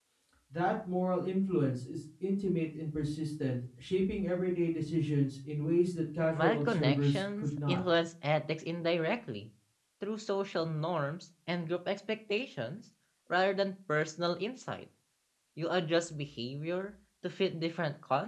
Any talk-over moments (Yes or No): Yes